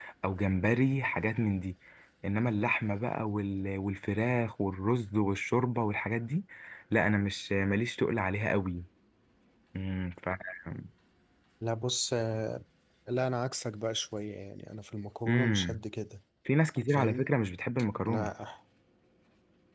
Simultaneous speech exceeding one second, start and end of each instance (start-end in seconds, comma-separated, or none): none